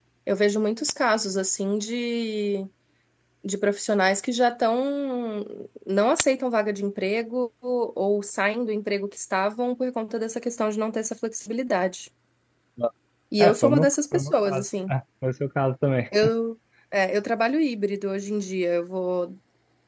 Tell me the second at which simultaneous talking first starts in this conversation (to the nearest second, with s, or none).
13 s